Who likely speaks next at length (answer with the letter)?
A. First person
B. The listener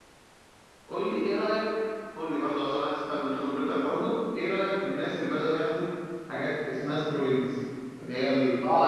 B